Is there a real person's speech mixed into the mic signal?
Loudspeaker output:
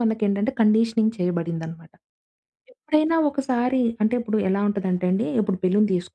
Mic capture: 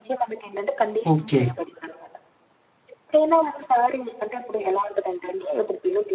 Yes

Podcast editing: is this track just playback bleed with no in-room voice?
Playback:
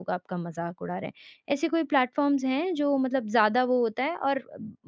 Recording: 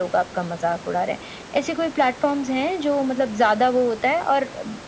Yes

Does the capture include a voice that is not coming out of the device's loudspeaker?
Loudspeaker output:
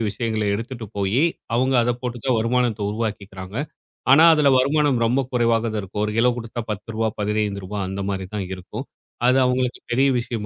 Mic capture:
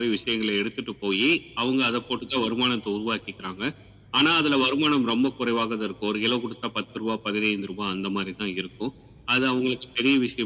No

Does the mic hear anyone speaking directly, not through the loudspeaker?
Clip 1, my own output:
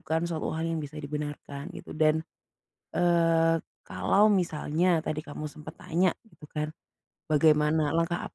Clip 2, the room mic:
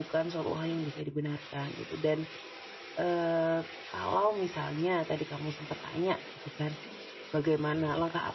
No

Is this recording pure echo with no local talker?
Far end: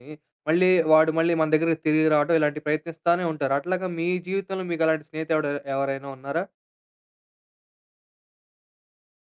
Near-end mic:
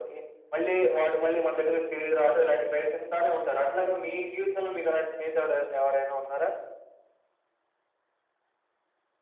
Yes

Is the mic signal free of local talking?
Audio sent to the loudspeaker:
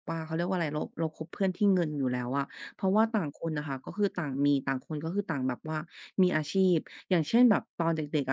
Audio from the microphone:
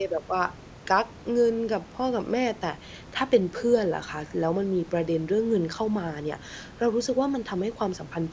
No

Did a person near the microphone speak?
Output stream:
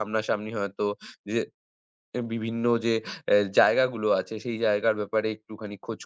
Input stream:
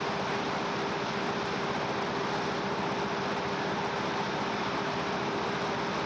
No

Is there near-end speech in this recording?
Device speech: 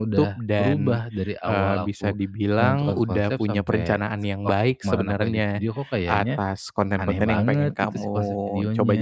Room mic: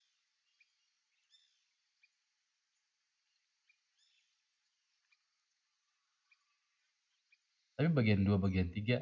Yes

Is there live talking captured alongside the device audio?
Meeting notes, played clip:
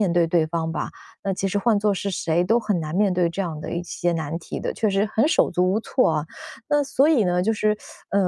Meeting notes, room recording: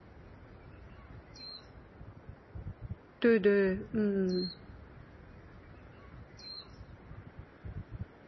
Yes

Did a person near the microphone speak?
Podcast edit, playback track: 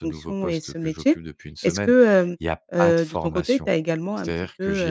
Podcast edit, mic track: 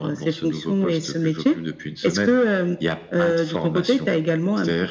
No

